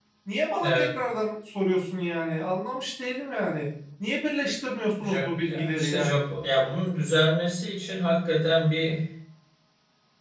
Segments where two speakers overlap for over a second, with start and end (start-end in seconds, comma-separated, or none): 5.0-6.2